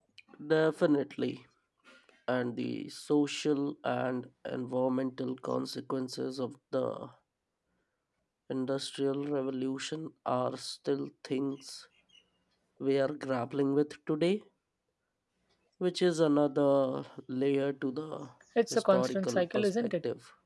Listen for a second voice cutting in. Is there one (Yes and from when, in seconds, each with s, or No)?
Yes, from 18.7 s